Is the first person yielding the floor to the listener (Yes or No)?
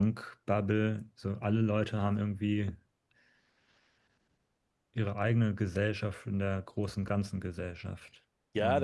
Yes